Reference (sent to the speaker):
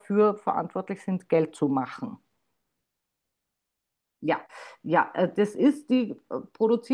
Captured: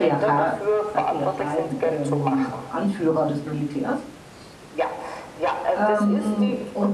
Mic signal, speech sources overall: both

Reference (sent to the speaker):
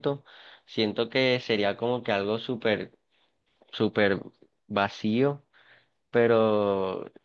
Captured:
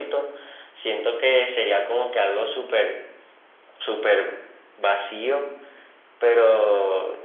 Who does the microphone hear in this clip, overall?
echo only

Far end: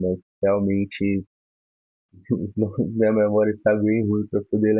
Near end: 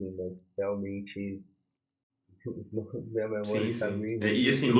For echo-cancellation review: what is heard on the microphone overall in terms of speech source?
both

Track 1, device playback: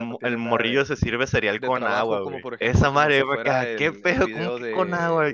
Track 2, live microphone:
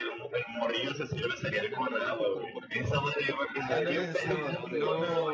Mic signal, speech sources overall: both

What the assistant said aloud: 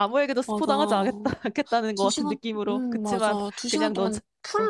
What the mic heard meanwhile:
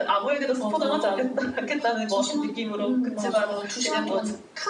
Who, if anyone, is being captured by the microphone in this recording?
echo only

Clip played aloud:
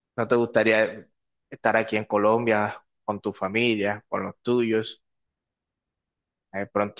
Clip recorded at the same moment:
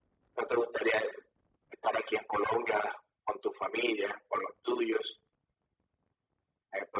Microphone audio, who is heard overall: echo only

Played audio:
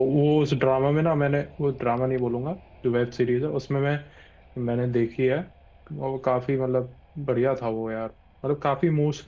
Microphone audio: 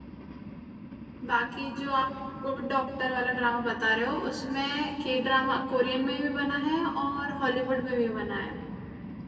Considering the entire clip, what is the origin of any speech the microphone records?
user only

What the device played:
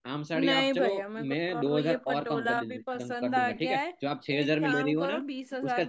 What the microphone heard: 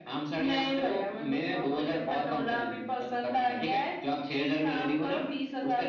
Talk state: echo only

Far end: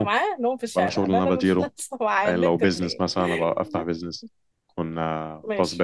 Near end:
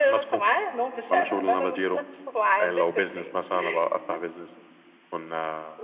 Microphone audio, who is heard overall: echo only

